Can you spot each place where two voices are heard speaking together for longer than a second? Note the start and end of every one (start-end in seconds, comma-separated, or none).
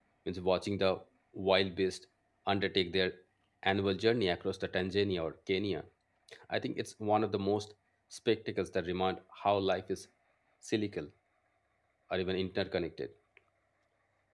none